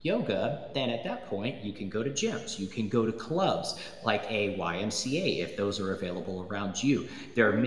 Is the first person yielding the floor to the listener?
No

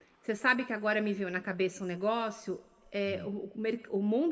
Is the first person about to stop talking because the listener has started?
No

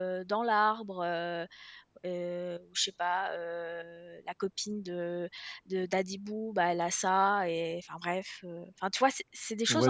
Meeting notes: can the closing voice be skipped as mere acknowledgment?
No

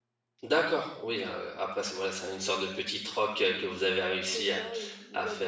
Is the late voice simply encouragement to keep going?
No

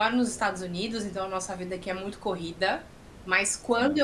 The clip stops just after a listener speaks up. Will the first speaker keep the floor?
Yes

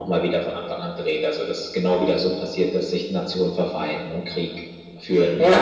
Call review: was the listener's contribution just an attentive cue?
No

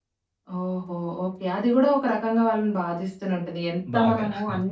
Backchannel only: Yes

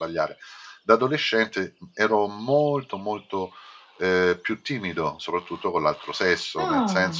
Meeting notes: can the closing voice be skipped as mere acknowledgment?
Yes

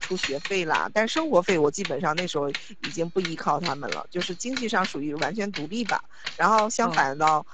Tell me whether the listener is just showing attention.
Yes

